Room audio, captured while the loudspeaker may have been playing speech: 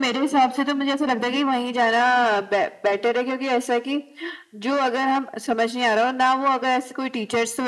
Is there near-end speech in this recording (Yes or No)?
No